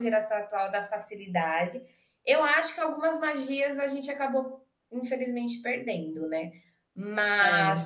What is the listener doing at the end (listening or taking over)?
listening